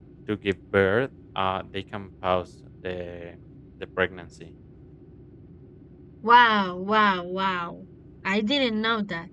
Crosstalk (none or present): none